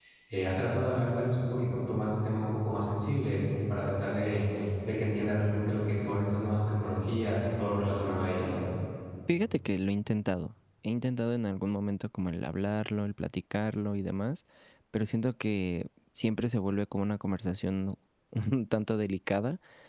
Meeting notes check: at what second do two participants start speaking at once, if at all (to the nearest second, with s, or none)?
none